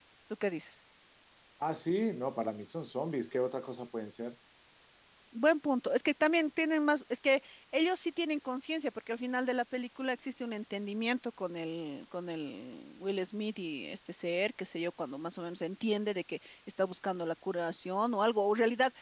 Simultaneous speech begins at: none

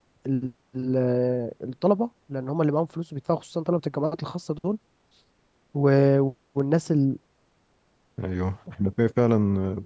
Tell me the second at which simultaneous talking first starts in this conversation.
none

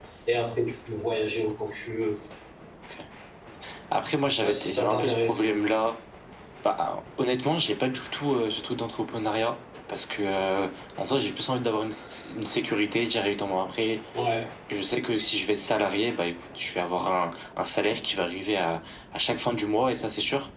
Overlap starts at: 4.2 s

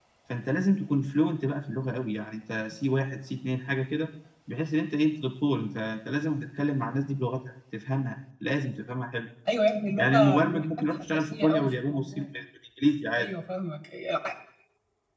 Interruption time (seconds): 10.0 s

